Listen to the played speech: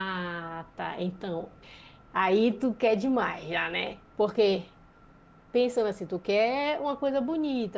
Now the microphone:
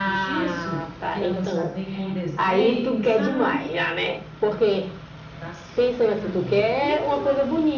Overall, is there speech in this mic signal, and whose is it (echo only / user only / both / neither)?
both